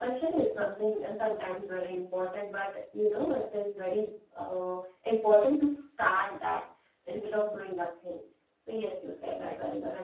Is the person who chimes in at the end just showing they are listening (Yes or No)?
No